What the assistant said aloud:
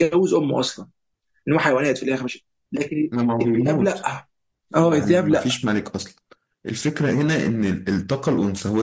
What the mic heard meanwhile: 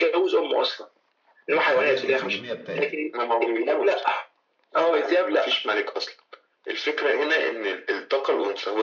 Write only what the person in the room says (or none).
الخلية الانسجامية بتاعتها